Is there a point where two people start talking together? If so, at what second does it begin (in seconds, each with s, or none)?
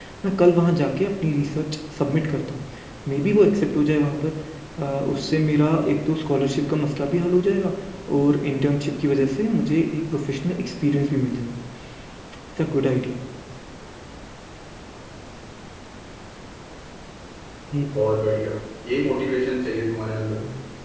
none